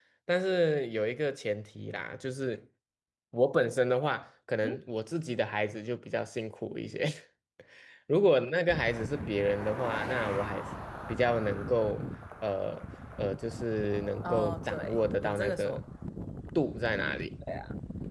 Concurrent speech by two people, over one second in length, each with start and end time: 14.2-15.8

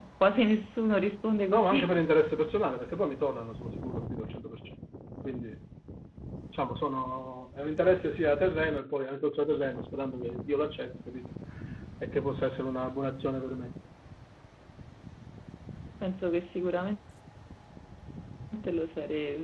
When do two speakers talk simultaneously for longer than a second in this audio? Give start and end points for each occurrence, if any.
none

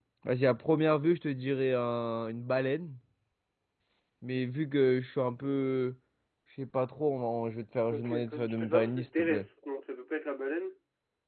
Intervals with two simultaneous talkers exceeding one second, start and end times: 7.9-9.4

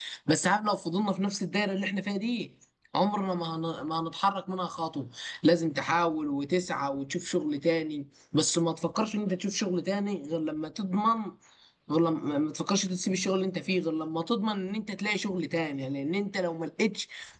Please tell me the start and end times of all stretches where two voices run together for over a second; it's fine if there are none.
none

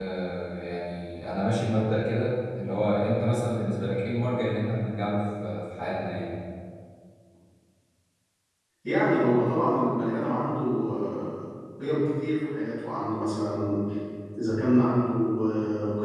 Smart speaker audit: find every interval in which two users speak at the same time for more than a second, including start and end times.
none

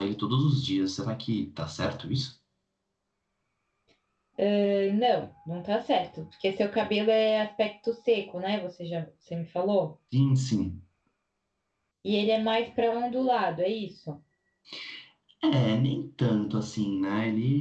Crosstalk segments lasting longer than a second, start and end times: none

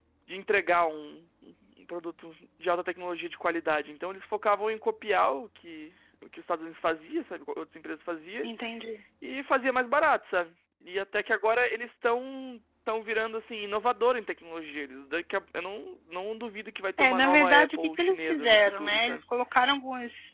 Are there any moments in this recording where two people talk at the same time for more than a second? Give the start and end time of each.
17.0-19.2

